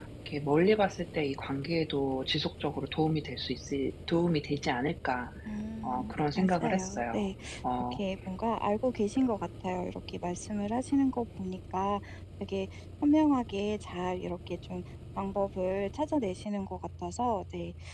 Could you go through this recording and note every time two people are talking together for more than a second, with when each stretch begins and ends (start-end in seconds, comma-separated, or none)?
5.8-7.2